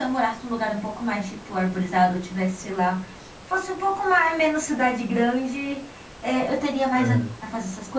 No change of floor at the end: Yes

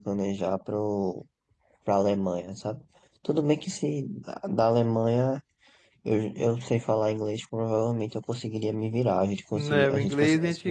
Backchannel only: No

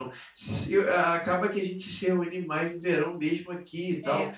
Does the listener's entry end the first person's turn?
No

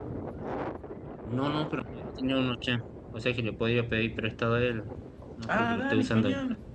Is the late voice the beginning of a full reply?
Yes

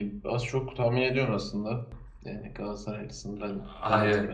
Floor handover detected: No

